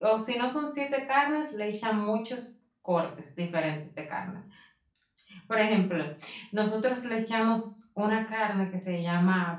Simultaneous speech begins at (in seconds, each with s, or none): none